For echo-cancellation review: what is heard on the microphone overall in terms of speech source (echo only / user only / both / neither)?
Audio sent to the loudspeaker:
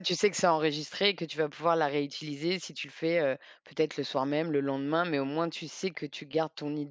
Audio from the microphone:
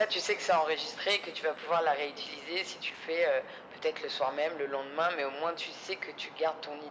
echo only